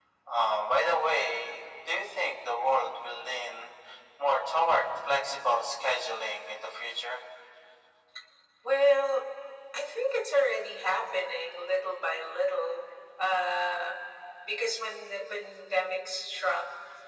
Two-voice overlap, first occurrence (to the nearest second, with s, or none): none